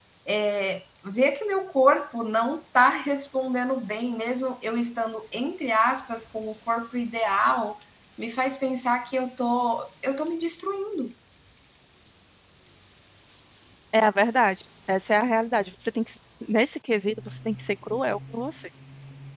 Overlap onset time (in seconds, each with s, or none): none